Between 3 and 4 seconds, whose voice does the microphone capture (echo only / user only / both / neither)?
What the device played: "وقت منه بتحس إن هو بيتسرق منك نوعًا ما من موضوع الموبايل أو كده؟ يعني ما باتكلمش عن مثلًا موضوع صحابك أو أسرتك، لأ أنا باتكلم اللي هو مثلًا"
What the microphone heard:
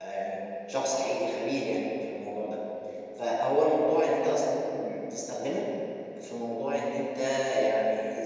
user only